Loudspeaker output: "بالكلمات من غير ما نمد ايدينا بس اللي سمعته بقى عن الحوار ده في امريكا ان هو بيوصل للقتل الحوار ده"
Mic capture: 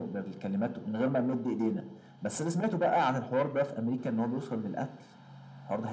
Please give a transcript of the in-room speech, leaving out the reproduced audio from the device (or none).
none